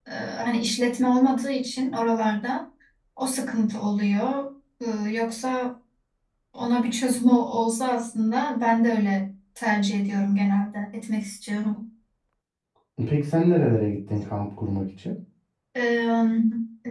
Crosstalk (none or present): none